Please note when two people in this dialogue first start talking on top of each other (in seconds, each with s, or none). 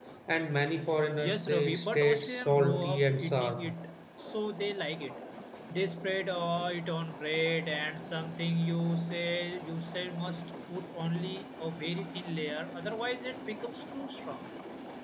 1.2 s